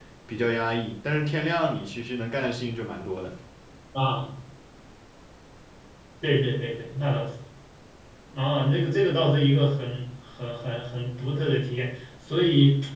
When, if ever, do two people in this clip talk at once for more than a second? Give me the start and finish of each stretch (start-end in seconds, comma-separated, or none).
none